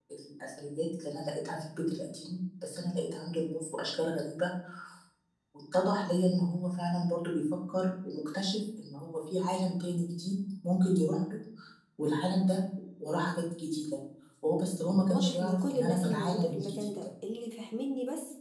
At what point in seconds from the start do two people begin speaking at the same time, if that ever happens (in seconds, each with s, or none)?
15.1 s